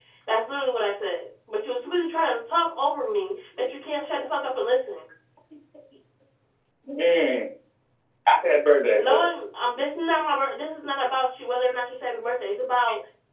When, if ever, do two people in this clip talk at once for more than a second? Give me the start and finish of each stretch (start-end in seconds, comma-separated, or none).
none